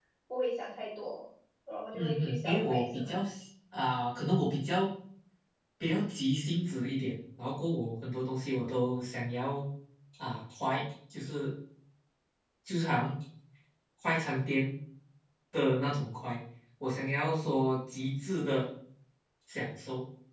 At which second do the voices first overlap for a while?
2 s

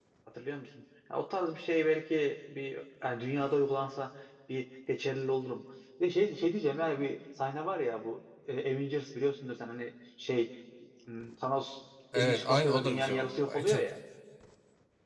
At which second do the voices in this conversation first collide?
12 s

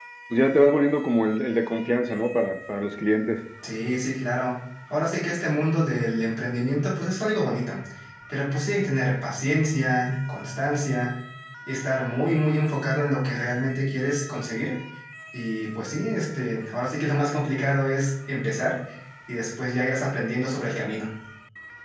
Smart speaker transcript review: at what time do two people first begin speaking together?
none

